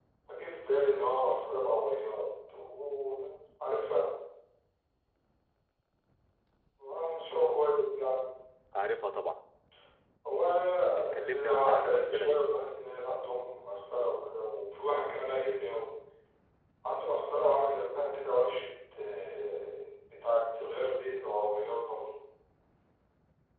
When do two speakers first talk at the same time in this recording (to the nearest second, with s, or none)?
11 s